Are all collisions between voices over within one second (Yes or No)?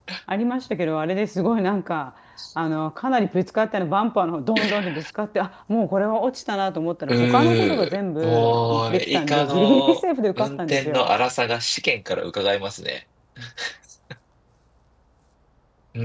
No